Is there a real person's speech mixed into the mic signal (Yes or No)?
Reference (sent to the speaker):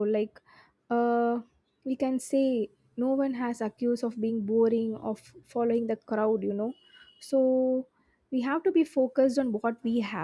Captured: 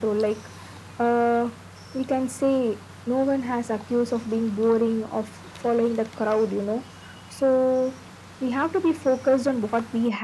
No